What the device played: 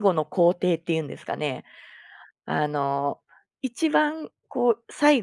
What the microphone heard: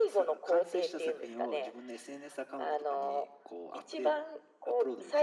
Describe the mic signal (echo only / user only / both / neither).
both